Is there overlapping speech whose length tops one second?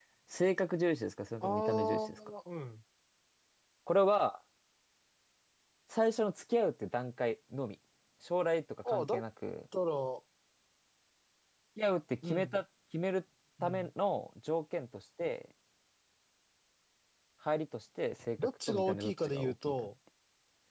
Yes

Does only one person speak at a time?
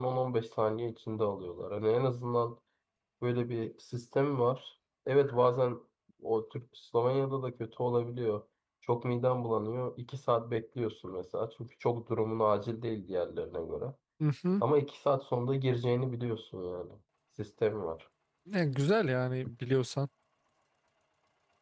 Yes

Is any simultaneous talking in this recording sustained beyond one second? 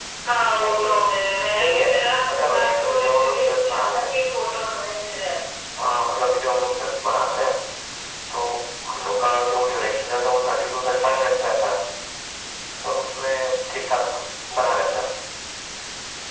Yes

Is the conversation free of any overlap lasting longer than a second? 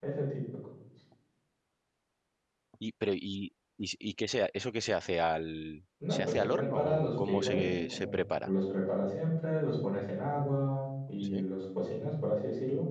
No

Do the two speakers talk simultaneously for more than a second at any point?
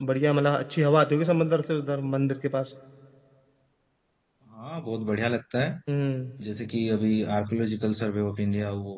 No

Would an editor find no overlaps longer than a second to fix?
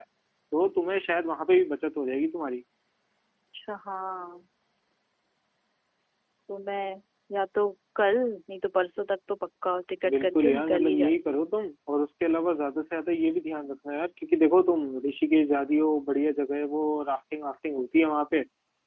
No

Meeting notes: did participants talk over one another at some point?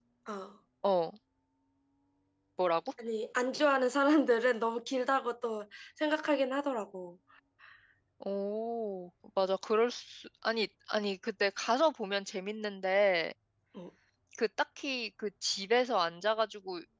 No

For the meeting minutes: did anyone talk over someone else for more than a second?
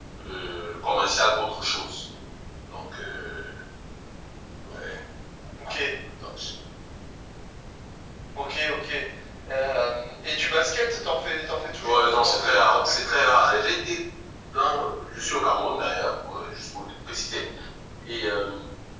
Yes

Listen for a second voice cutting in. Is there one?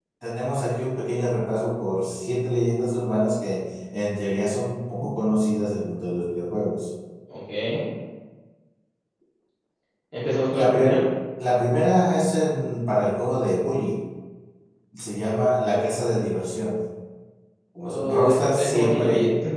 Yes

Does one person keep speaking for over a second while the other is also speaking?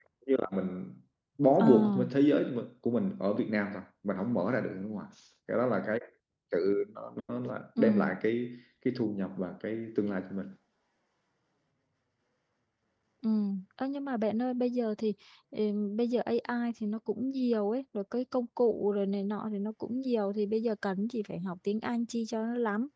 No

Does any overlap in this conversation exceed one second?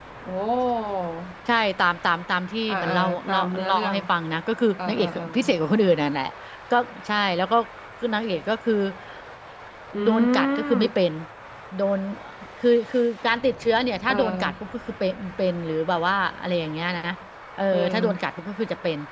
Yes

